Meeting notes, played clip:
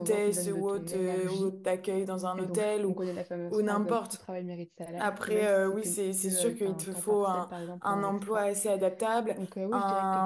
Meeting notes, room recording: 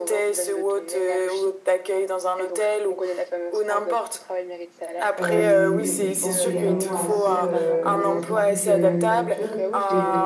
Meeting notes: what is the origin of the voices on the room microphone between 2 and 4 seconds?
echo only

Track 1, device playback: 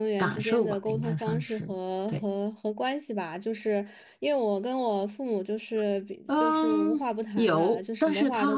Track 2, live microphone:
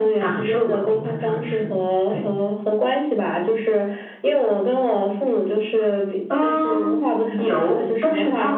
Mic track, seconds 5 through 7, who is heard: echo only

